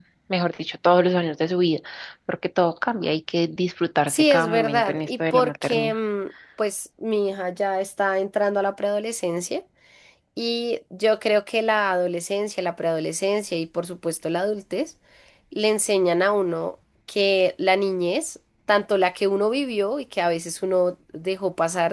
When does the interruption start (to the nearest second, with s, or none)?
4 s